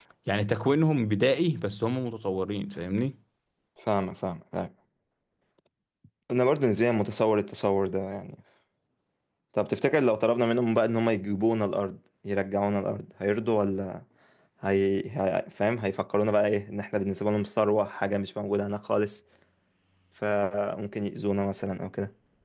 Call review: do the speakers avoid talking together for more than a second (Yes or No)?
Yes